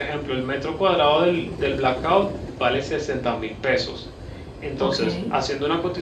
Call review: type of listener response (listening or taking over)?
listening